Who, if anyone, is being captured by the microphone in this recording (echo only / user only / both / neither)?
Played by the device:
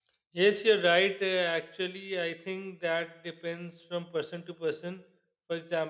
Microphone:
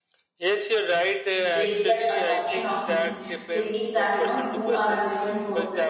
both